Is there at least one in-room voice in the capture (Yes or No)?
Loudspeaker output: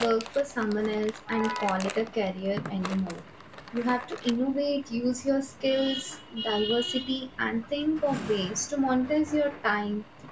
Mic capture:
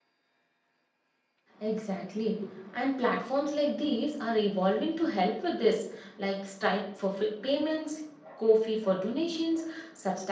Yes